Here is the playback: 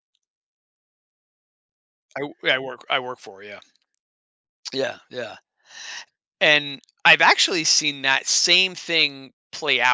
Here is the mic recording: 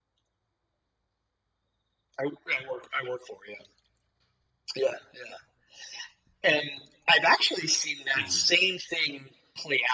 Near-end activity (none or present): present